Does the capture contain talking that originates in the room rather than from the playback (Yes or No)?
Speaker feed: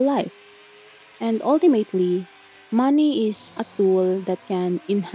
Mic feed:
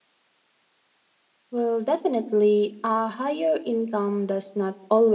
Yes